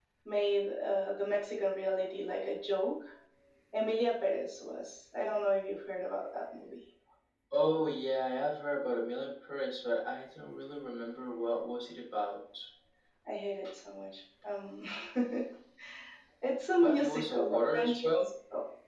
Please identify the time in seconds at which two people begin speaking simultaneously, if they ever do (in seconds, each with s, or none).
16.8 s